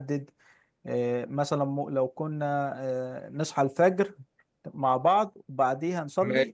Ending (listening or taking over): listening